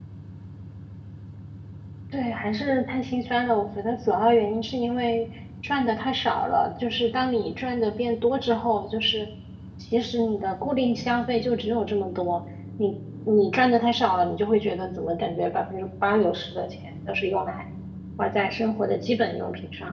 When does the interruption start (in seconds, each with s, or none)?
none